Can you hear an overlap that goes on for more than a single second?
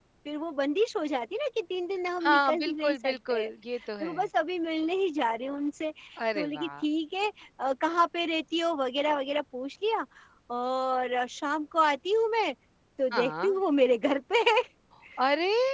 Yes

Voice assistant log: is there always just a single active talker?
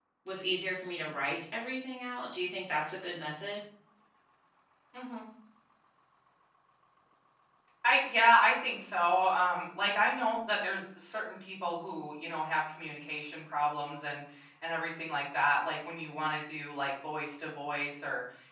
Yes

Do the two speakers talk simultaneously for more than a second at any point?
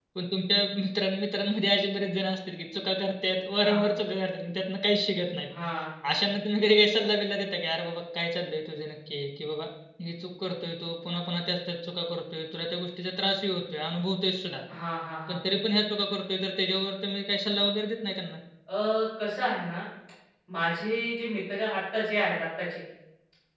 No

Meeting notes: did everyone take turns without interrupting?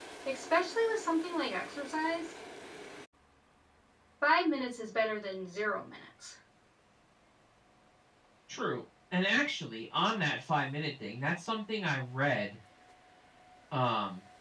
Yes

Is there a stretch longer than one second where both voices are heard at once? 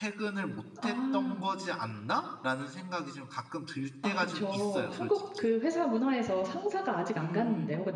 Yes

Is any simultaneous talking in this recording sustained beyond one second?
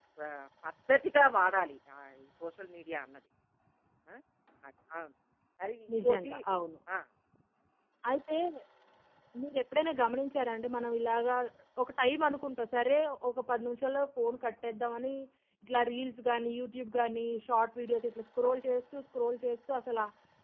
No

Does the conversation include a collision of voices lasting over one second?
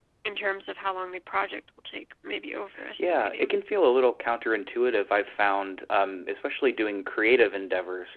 No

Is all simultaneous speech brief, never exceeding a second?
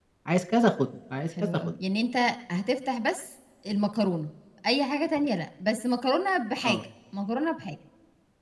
Yes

